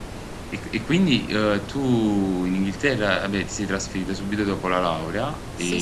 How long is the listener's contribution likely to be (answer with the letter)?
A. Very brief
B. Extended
B